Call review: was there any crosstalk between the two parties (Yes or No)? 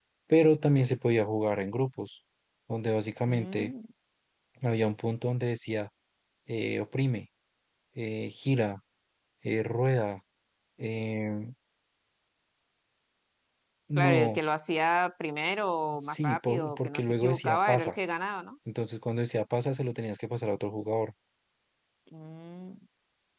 Yes